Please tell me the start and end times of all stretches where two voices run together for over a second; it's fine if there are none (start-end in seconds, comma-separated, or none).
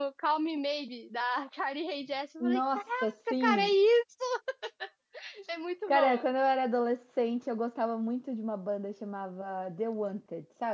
2.4-3.7